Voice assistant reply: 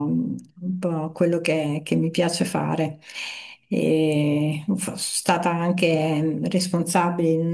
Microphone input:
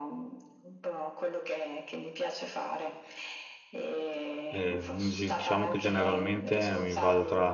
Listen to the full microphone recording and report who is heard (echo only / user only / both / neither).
both